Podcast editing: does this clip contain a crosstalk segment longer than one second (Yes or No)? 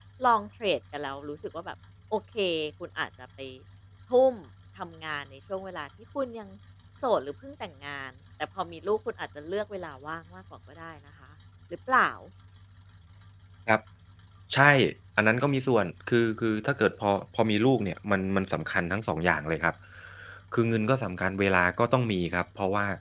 No